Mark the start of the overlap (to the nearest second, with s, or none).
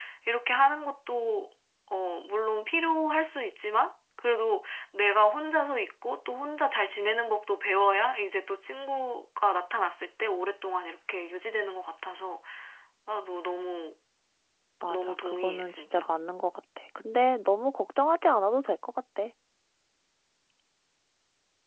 15 s